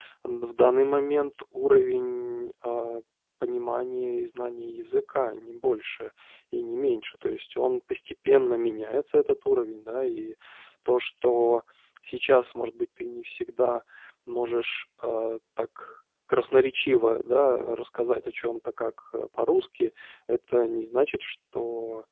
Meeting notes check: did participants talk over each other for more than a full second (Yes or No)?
No